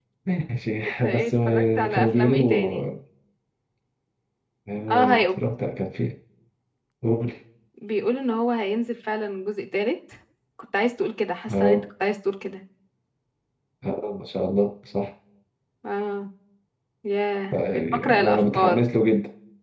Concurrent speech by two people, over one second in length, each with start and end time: 0.9-2.9, 17.5-18.8

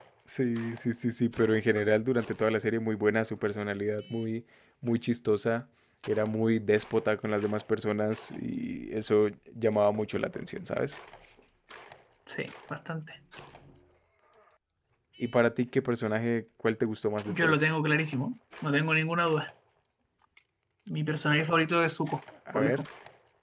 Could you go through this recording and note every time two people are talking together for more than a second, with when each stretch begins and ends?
none

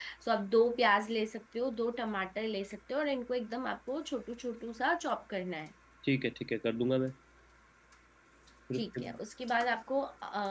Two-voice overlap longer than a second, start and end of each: none

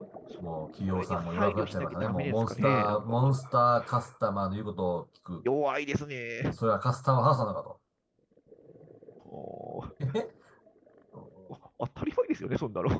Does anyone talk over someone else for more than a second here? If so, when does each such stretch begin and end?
0.9-3.3

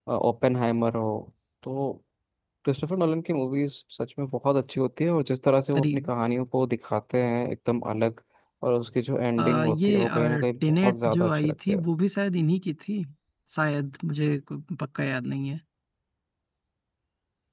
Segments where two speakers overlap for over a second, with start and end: 9.4-11.8

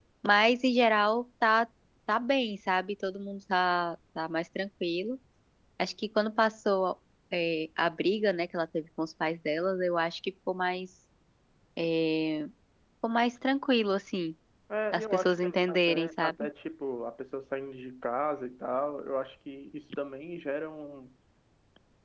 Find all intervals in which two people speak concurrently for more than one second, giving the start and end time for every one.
14.9-16.5

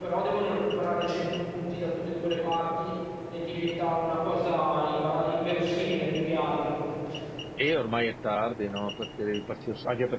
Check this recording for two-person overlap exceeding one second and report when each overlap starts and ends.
none

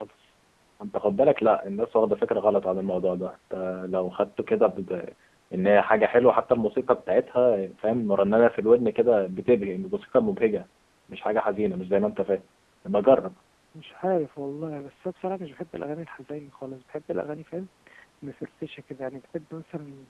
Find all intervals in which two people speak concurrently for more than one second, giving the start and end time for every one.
none

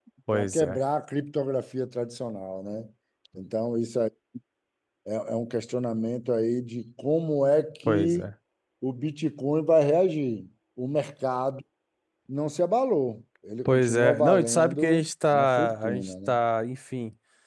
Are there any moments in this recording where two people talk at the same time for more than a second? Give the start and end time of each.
13.7-16.4

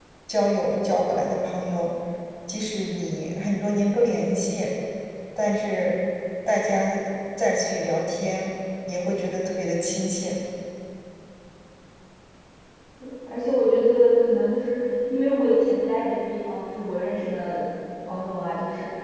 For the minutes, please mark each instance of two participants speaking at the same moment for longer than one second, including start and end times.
none

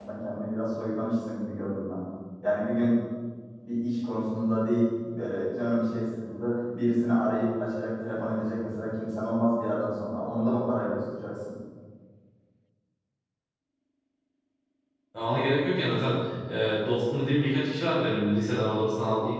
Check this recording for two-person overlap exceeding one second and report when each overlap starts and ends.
none

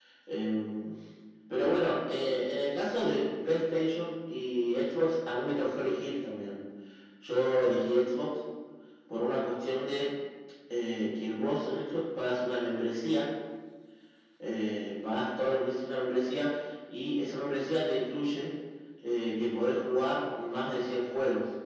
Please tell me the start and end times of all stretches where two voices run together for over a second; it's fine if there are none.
none

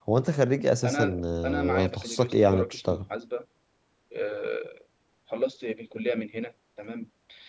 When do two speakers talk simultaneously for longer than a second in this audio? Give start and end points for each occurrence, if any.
0.8-3.0

